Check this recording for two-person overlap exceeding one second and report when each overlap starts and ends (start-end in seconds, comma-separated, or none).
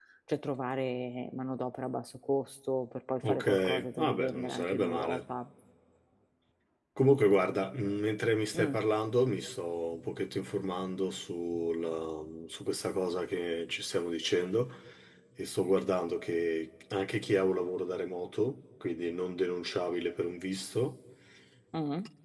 3.3-5.2